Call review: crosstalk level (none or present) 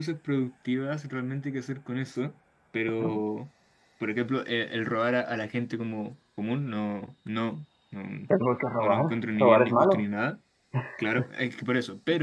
present